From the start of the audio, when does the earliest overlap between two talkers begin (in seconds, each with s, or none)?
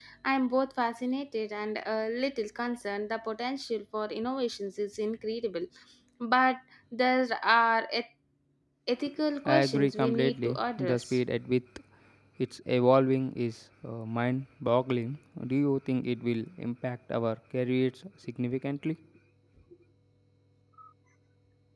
9.4 s